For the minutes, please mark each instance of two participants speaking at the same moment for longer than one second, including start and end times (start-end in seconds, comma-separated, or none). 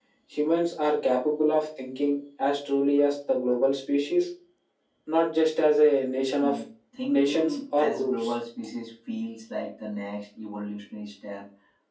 7.1-8.3